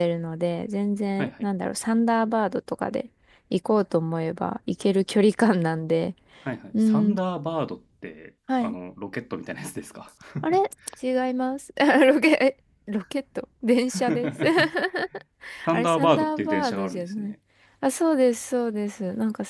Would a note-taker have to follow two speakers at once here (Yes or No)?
Yes